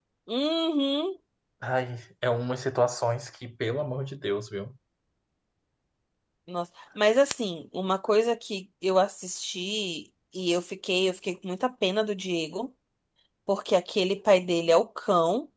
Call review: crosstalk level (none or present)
none